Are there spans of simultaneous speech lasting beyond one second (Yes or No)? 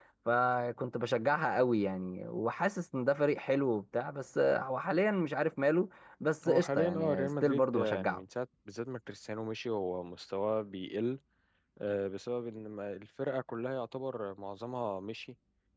Yes